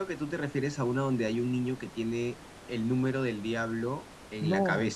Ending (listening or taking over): taking over